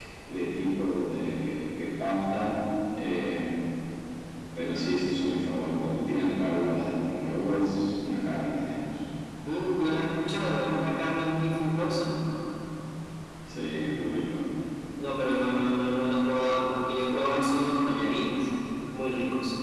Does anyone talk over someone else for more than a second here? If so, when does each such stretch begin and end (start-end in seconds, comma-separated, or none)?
none